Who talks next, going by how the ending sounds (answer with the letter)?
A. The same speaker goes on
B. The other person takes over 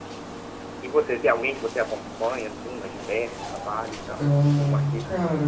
B